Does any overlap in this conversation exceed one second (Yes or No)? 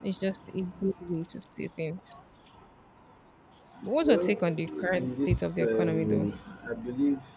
Yes